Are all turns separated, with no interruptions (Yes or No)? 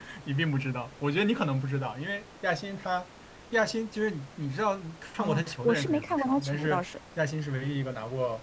No